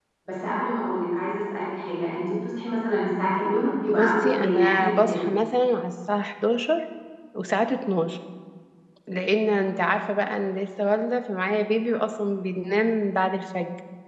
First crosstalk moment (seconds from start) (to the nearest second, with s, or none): 4 s